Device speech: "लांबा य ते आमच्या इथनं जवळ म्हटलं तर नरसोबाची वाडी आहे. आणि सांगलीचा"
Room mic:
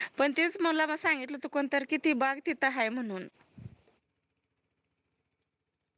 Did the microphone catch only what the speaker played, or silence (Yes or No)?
No